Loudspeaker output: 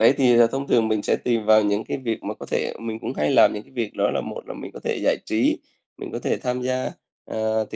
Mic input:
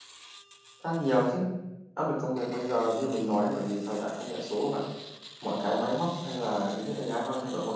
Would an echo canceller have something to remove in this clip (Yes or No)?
No